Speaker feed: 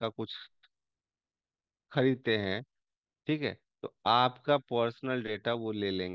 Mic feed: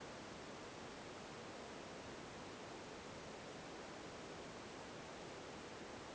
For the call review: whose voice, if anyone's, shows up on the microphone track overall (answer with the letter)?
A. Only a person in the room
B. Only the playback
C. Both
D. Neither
D